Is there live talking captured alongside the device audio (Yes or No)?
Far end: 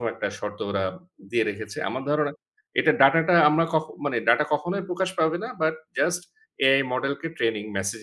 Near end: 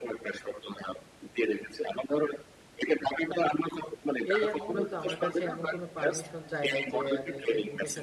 Yes